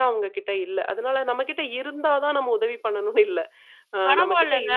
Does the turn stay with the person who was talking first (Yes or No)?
No